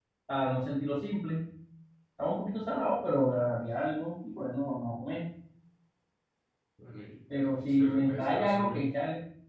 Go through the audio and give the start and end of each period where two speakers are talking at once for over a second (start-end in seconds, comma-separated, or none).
7.6-8.8